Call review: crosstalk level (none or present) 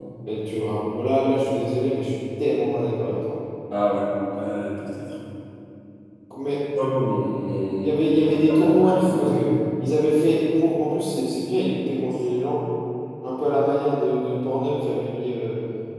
present